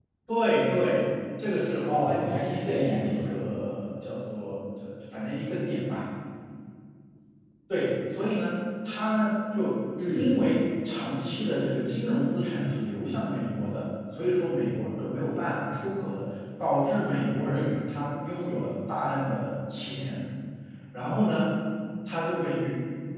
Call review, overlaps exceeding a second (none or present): present